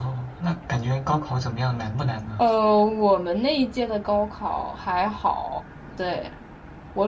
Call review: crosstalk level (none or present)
none